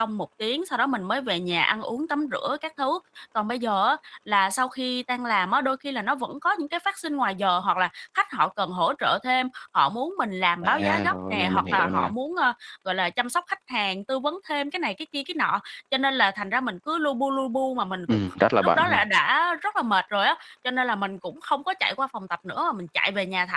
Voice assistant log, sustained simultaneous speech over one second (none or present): present